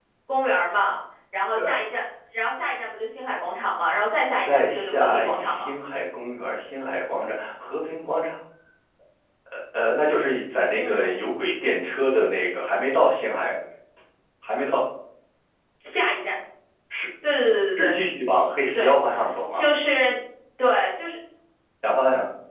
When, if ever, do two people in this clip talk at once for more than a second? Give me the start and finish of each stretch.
4.4-5.7

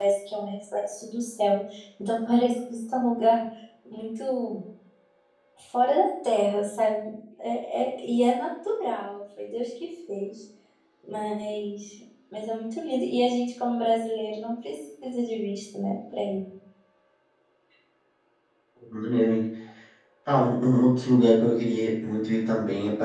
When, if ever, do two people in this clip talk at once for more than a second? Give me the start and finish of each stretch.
none

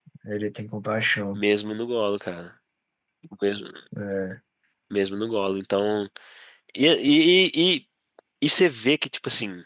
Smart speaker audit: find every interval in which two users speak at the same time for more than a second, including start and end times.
none

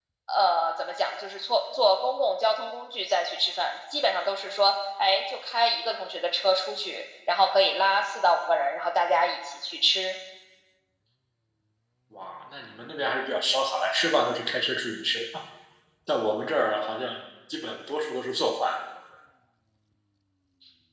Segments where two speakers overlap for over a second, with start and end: none

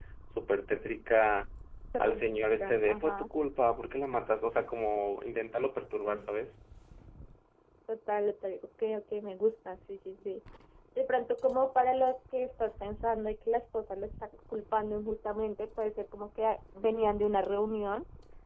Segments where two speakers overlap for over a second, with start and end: 2.0-3.3

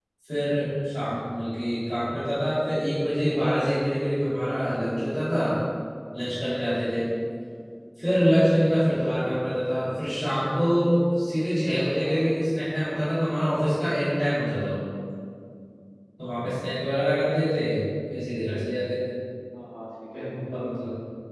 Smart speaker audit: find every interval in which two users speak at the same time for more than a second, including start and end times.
none

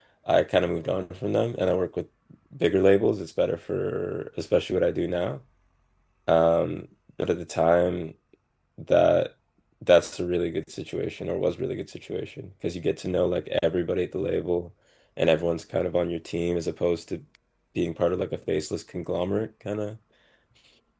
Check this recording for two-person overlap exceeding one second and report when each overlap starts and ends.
none

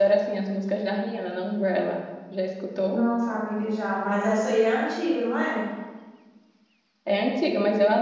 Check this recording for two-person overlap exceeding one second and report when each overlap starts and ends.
none

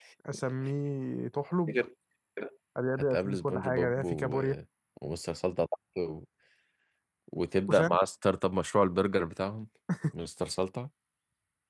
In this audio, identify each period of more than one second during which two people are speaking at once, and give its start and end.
3.0-4.4

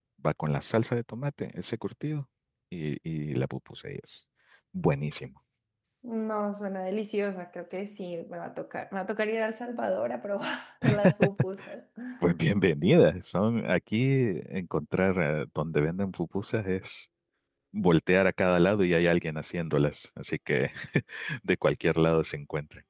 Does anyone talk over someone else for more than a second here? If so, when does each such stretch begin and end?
none

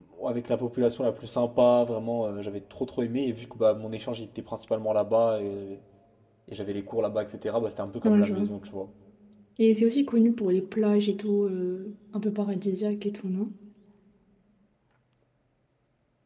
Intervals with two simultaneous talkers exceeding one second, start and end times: none

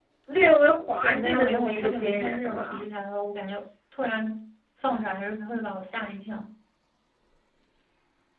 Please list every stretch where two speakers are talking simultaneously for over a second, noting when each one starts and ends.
1.0-2.8

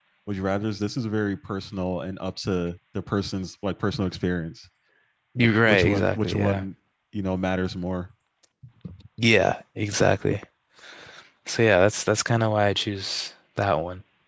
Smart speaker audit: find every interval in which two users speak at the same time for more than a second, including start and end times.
5.4-6.6

